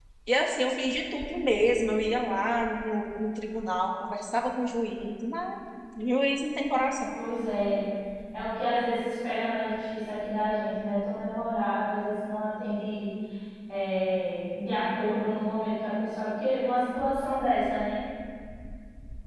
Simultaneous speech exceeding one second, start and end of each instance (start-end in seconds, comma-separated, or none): none